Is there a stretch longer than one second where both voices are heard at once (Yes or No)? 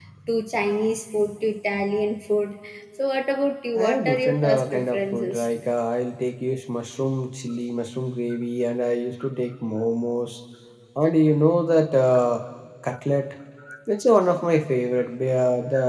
Yes